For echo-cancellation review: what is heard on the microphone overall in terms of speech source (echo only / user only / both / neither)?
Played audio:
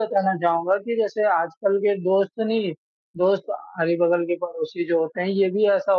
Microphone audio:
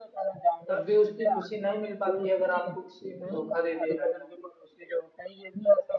both